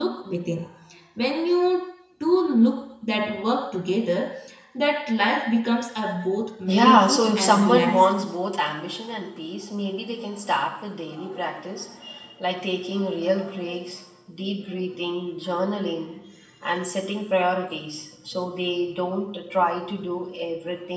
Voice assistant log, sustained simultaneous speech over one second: present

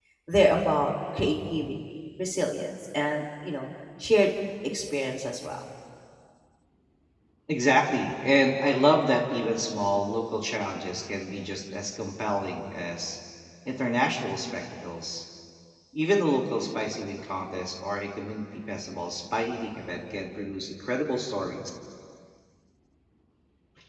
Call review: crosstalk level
none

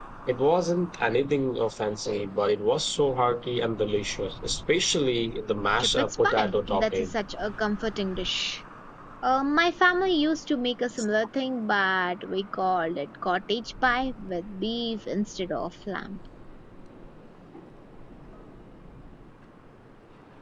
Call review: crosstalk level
present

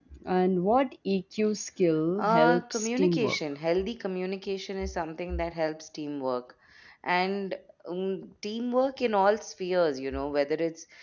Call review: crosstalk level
present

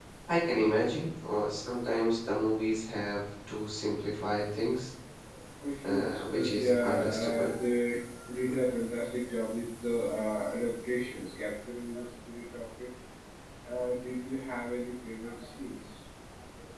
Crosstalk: present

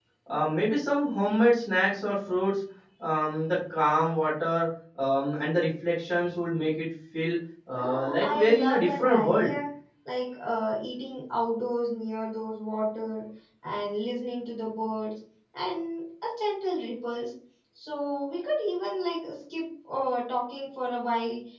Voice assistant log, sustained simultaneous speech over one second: present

